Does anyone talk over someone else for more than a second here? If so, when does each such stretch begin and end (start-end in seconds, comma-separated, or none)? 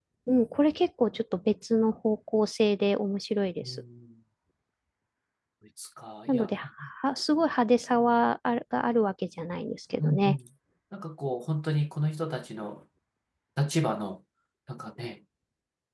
none